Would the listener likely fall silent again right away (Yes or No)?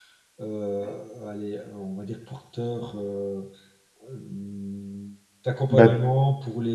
Yes